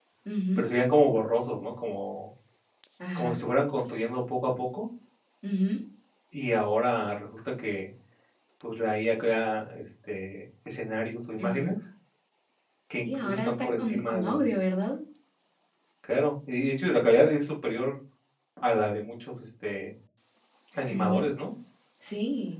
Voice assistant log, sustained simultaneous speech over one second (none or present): present